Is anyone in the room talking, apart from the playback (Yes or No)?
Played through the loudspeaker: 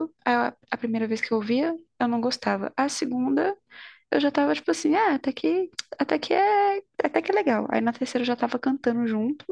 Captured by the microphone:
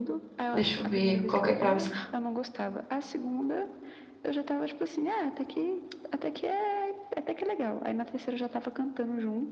Yes